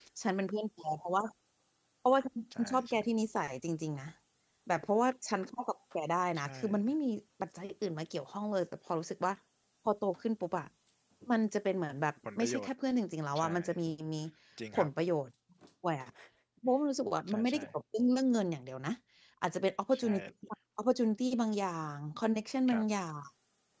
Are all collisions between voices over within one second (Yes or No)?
Yes